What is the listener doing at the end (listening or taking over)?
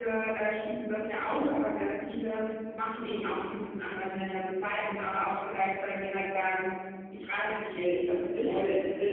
taking over